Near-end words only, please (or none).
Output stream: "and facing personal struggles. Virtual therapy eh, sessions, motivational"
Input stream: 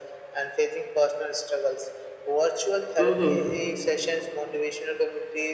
Mhm.